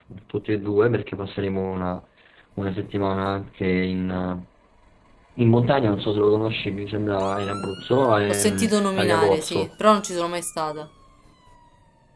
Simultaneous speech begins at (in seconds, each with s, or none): 8.3 s